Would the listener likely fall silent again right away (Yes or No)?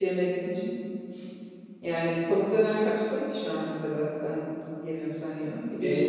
No